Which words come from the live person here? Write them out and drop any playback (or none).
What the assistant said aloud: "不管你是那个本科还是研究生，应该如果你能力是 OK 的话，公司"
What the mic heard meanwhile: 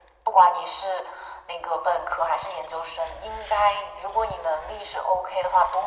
none